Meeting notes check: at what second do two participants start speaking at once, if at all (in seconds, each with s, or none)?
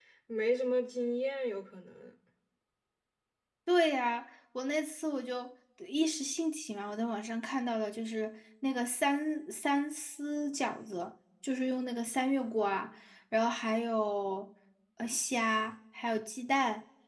none